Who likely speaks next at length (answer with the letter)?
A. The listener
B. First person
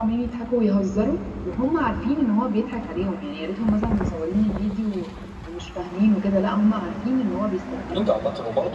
A